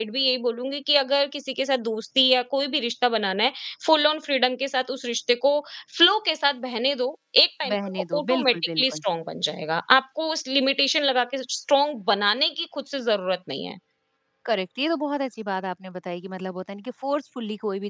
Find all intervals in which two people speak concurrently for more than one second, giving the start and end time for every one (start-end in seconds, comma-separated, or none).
7.7-9.0